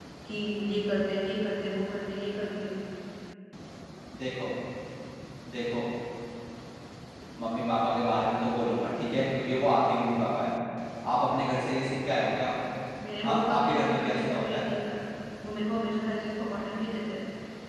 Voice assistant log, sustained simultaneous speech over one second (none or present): present